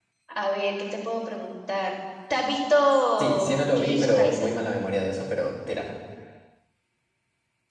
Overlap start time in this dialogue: 3.2 s

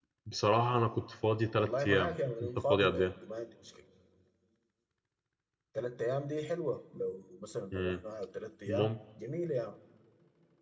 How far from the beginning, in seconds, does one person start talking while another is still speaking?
1.5 s

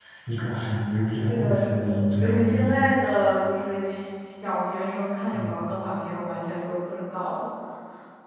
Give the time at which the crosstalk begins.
1.3 s

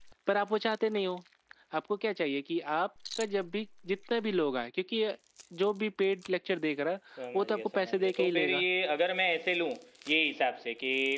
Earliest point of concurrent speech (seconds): 7.2 s

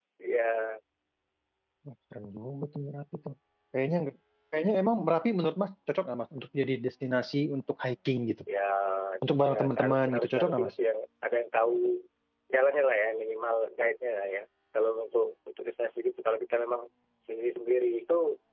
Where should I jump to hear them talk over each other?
9.5 s

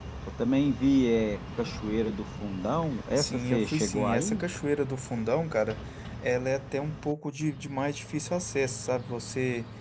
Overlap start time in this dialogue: 3.2 s

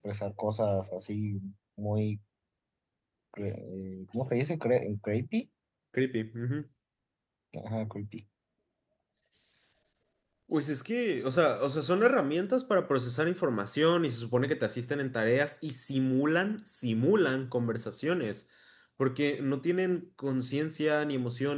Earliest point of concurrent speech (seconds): none

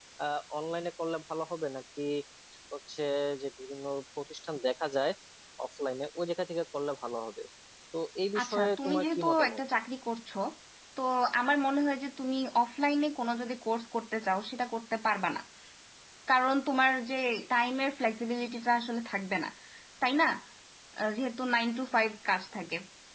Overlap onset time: 8.4 s

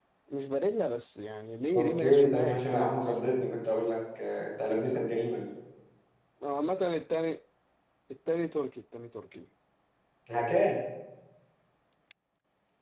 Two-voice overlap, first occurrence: 1.7 s

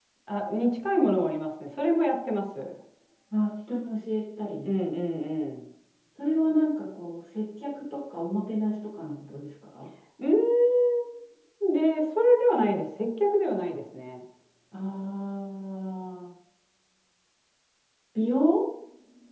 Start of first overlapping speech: none

